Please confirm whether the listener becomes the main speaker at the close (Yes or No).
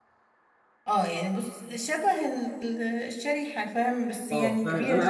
Yes